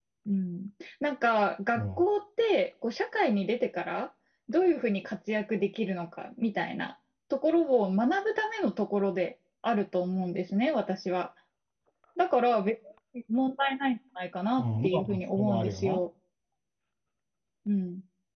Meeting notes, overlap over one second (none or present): present